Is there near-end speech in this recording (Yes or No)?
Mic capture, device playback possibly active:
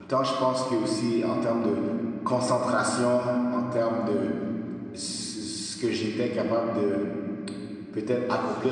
Yes